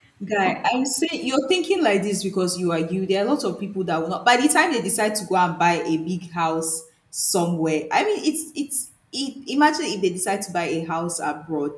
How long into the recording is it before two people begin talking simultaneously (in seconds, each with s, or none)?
none